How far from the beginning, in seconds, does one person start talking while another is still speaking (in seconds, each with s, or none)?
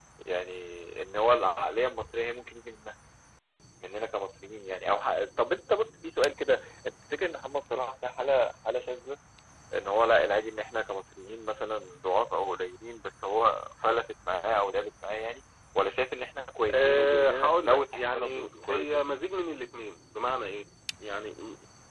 16.7 s